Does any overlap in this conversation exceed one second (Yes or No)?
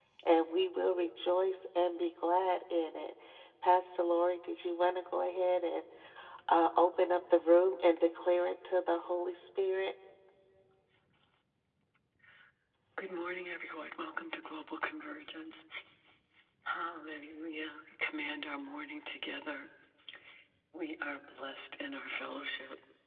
No